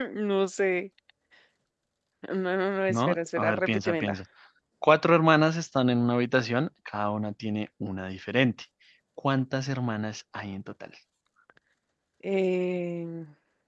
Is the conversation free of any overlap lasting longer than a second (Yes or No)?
No